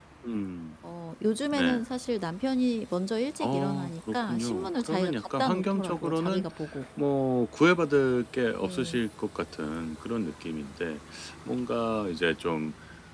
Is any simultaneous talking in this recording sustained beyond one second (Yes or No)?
Yes